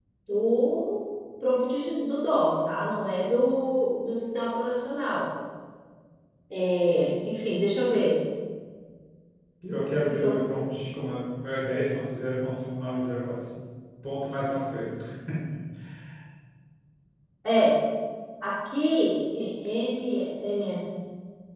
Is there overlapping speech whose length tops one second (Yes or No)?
No